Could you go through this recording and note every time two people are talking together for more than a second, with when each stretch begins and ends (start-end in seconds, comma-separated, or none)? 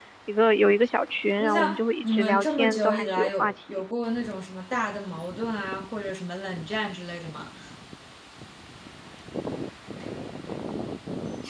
1.4-3.8